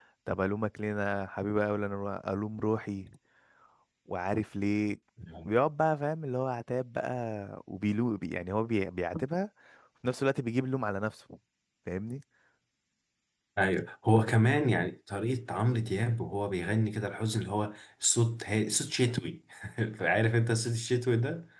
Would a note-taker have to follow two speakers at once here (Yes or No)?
No